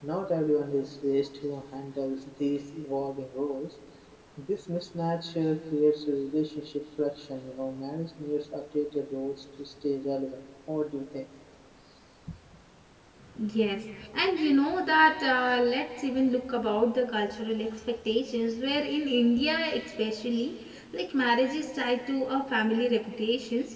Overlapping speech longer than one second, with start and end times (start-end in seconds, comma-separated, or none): none